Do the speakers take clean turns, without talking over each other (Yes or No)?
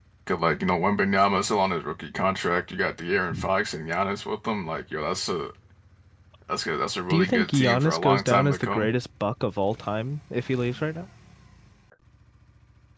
No